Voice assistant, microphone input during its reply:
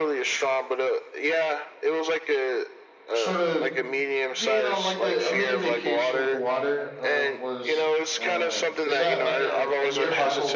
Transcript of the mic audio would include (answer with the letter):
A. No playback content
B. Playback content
B